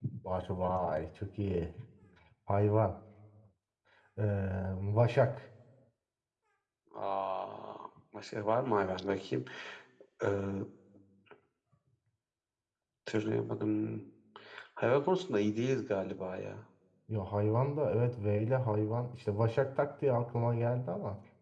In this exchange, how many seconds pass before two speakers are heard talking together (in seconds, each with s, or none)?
none